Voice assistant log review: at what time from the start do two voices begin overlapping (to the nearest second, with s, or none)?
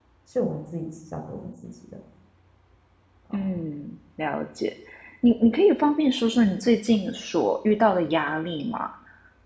none